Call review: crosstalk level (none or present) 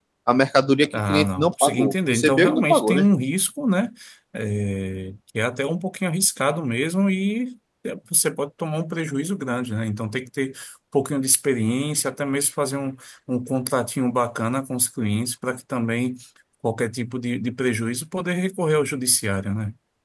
present